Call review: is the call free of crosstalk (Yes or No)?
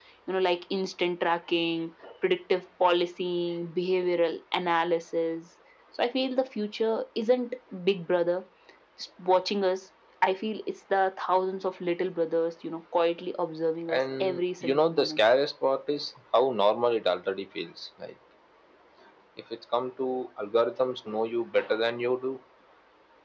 No